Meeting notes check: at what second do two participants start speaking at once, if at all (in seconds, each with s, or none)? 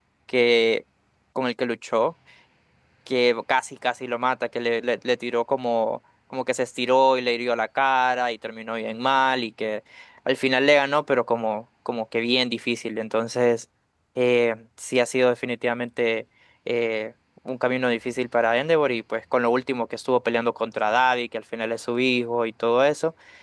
none